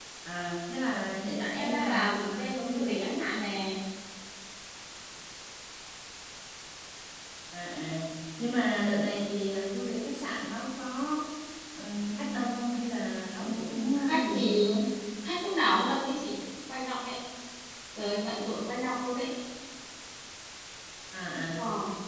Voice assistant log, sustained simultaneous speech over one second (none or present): present